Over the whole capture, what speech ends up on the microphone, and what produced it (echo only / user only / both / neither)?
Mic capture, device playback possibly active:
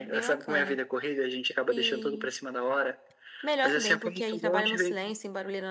both